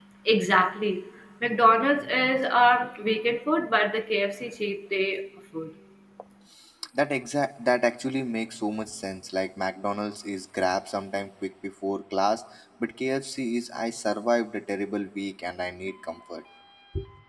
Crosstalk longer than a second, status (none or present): none